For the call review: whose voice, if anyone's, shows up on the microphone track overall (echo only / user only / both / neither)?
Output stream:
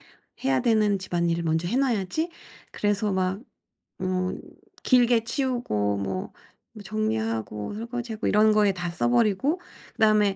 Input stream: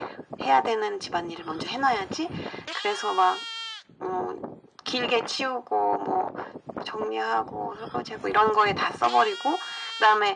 echo only